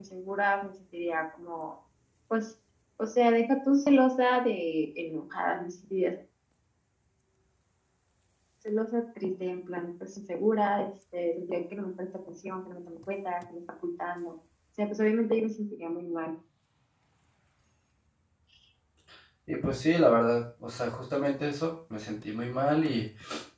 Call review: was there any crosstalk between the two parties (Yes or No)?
No